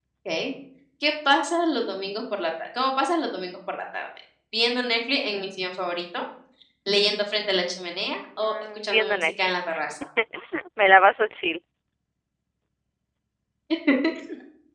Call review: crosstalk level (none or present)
present